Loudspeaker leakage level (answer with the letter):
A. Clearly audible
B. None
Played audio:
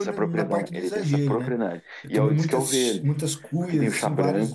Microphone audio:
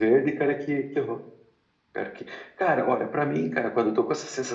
B